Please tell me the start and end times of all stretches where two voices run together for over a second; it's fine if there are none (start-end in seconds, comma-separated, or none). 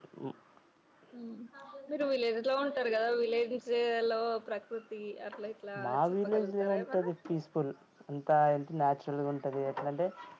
5.8-7.1